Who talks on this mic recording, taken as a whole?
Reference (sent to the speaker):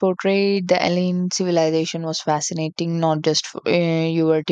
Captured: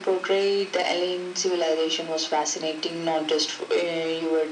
echo only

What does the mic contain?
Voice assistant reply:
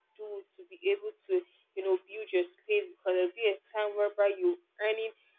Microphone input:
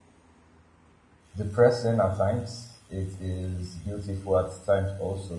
user only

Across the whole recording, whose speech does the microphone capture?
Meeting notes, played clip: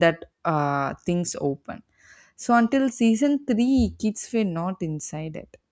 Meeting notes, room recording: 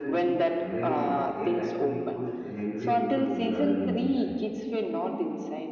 both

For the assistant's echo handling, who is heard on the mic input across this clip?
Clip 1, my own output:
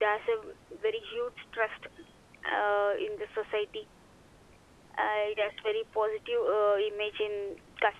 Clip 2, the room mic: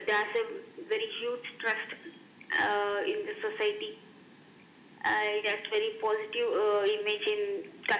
echo only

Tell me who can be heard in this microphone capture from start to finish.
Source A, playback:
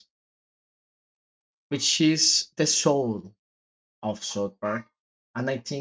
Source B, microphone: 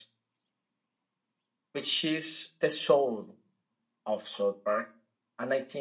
echo only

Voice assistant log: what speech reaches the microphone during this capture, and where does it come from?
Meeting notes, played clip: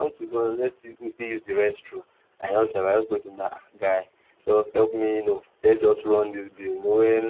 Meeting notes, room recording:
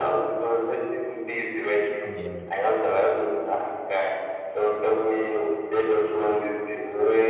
both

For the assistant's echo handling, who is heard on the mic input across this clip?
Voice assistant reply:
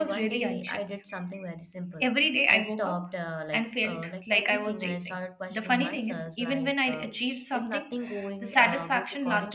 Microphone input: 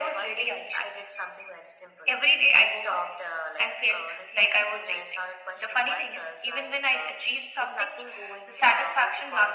echo only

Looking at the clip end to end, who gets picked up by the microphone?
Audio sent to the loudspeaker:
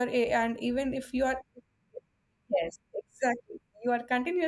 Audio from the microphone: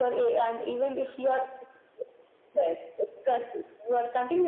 echo only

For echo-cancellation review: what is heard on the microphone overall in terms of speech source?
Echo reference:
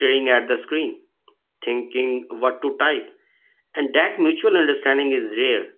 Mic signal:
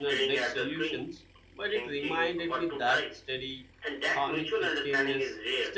both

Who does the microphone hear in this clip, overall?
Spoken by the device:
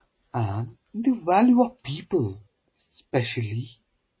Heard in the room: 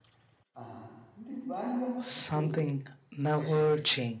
both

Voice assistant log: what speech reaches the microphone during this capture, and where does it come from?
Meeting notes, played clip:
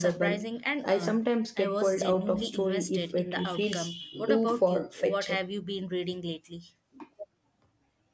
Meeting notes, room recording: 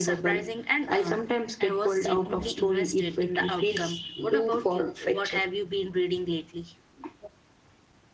echo only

